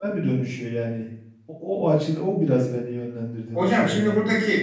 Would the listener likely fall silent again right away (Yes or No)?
No